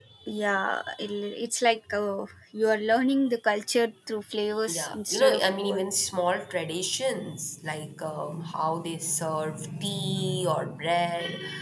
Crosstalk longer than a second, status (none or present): present